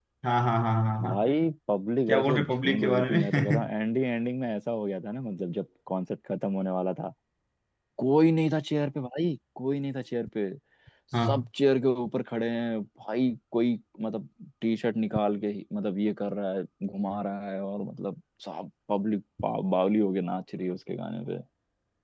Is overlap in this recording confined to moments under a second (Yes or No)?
No